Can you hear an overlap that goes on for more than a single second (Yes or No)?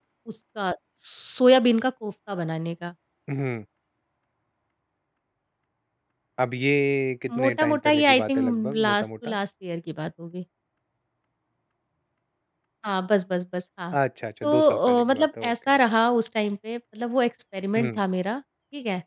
Yes